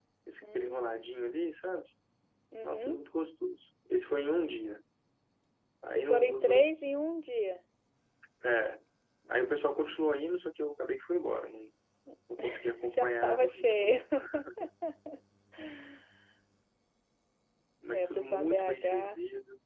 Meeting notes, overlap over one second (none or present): present